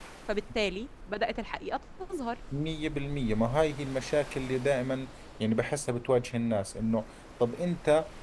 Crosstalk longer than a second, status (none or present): none